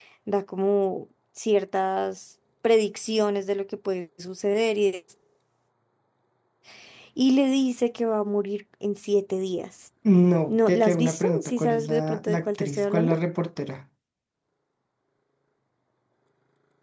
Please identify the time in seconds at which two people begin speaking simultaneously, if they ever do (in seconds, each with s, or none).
10.5 s